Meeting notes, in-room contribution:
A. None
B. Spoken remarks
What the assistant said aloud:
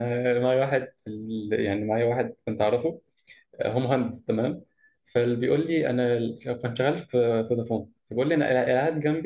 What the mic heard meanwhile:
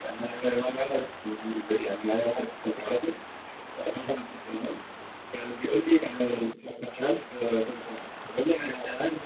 A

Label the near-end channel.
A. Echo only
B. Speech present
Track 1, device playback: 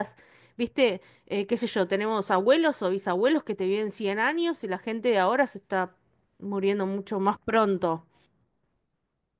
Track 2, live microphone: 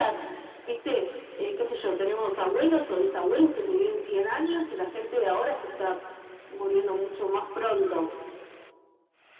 B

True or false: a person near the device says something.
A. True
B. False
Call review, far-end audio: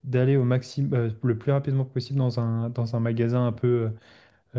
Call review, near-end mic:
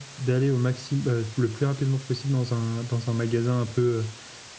B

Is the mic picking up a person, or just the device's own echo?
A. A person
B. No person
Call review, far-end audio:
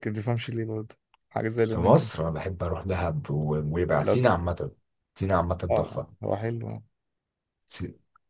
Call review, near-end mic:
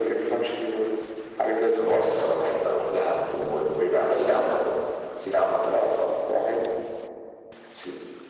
B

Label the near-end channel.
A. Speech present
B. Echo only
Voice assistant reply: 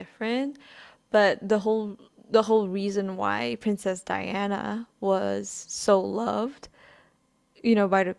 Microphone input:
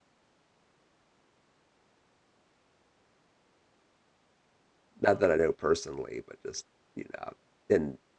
A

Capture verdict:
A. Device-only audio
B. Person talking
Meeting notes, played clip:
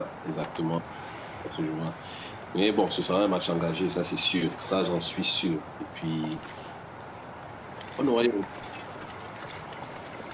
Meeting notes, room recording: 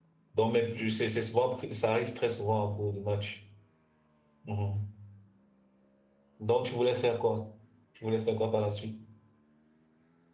B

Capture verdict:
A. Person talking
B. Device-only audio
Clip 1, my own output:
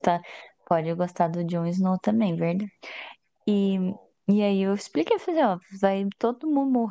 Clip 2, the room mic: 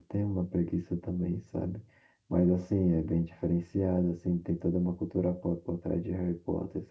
A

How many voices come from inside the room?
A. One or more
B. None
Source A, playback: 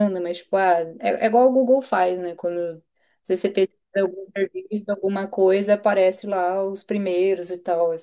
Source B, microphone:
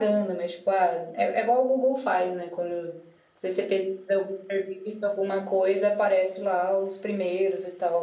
B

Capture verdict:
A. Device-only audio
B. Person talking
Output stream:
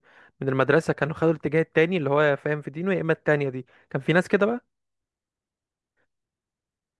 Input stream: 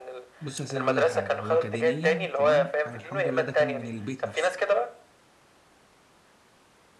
B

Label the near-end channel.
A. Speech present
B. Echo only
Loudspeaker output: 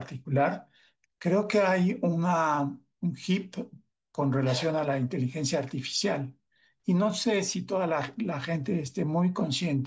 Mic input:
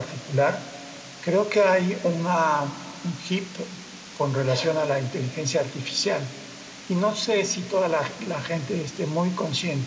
B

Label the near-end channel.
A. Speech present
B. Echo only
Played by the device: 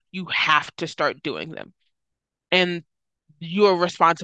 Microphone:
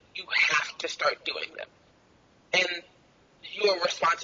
B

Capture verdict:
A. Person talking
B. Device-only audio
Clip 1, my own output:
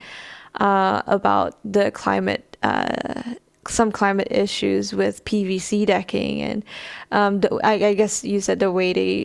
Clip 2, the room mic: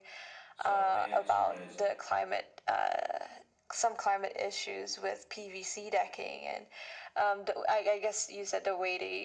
A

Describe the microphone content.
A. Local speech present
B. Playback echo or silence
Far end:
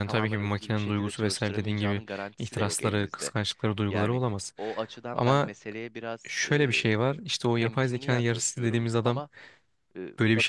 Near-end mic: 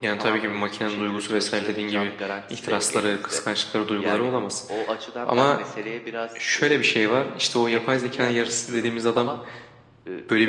B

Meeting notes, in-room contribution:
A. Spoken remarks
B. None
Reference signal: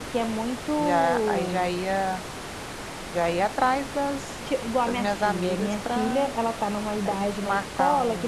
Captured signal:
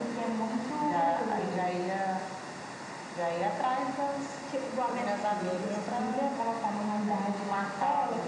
B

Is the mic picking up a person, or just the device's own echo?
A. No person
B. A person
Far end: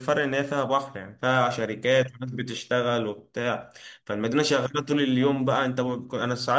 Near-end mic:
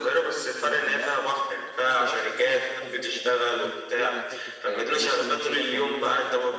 B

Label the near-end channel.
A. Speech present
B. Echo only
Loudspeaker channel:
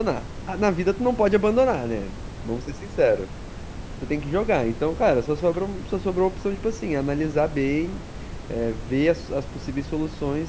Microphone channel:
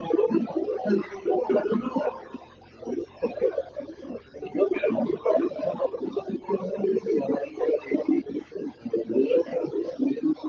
B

